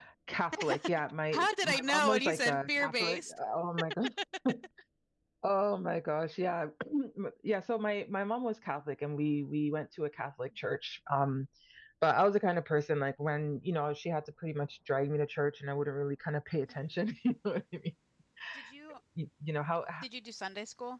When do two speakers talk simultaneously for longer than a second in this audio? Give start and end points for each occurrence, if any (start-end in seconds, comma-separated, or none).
1.3-3.4